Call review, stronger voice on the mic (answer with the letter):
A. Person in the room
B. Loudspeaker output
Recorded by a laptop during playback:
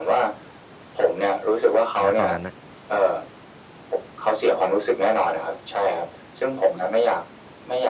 B